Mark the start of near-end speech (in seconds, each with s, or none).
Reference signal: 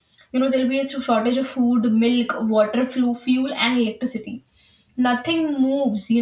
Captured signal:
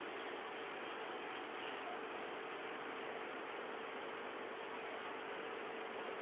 none